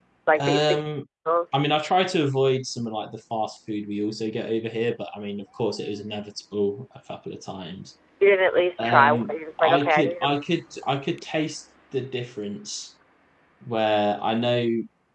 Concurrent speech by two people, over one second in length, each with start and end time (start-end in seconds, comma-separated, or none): 8.8-10.4